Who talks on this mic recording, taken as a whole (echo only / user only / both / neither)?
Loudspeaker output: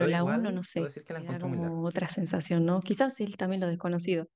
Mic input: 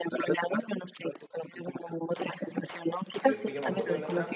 both